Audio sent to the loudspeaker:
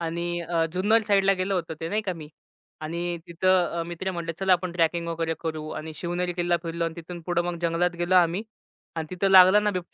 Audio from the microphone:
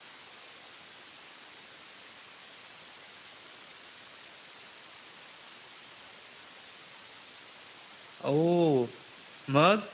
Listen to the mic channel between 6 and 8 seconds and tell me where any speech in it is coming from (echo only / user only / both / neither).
neither